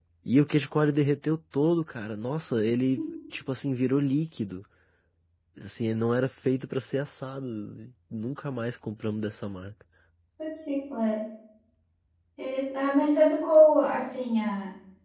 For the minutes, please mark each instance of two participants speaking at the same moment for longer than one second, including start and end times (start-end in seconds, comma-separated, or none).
none